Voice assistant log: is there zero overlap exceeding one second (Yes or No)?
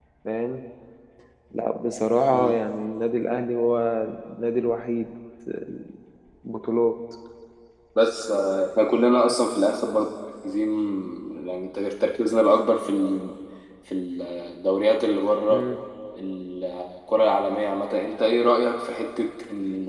Yes